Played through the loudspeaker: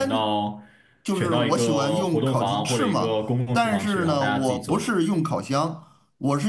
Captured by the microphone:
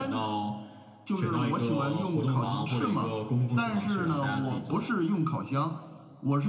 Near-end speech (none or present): none